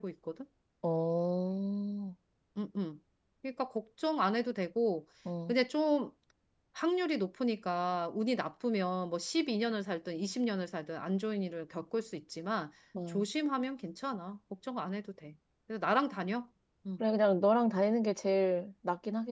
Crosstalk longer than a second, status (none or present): none